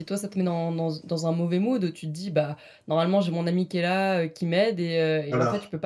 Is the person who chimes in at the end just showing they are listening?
Yes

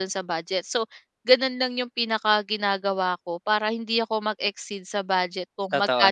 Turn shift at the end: No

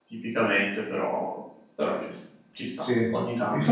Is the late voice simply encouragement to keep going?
No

